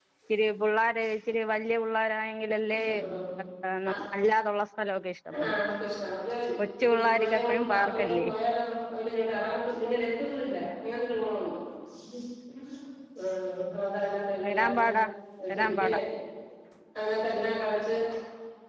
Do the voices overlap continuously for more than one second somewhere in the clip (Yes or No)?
Yes